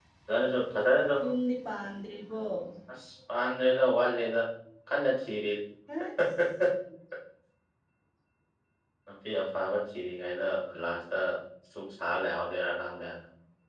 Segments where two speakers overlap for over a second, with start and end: none

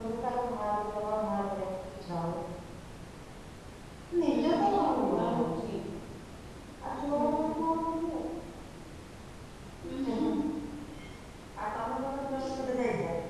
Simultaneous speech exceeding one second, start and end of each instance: 4.2-5.5

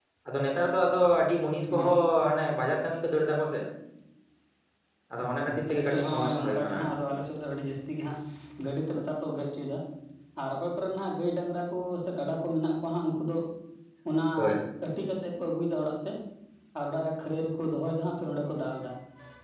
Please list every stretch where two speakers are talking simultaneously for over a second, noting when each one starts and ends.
5.2-6.9

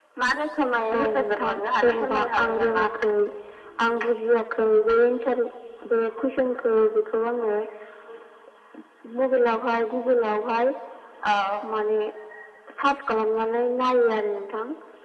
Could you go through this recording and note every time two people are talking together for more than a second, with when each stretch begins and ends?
0.9-2.9

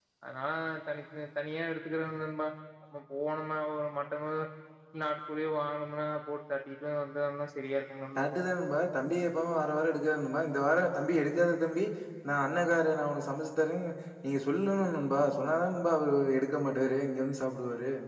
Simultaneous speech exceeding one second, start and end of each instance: none

